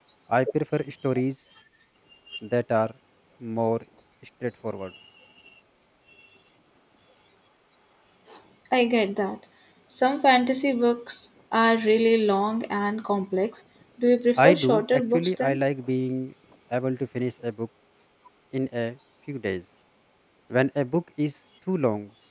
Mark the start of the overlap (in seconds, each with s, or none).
14.4 s